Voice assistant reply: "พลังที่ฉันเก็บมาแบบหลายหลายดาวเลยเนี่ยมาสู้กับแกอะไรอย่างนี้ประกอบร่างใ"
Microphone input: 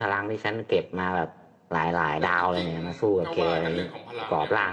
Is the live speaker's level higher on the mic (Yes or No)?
No